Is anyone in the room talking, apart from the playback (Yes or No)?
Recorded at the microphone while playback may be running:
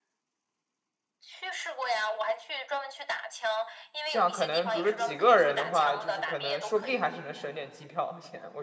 Yes